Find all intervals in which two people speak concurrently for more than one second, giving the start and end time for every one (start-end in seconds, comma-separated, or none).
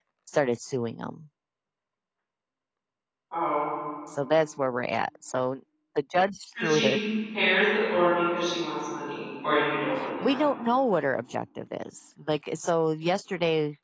none